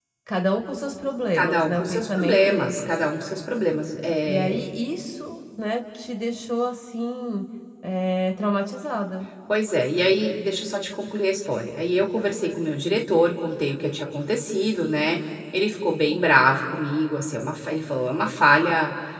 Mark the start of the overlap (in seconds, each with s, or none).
1.3 s